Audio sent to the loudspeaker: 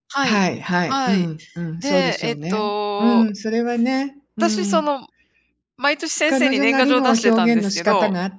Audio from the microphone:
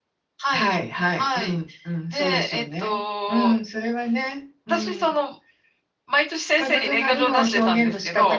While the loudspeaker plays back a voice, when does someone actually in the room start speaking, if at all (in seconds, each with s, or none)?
none